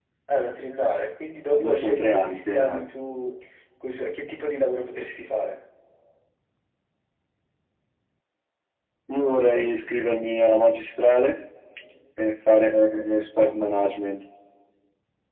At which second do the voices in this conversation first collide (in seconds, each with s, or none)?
1.6 s